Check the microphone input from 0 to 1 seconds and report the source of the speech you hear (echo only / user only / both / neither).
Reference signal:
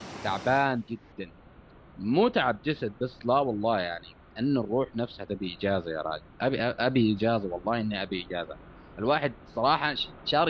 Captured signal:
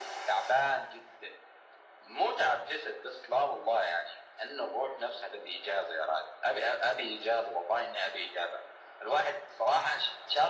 echo only